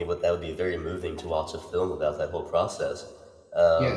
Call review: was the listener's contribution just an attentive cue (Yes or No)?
No